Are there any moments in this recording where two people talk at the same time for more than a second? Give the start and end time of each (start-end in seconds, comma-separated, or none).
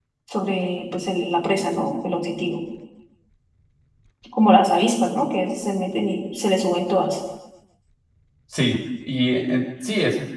none